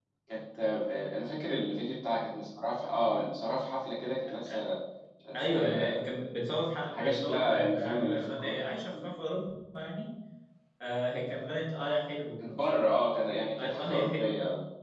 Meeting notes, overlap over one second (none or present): present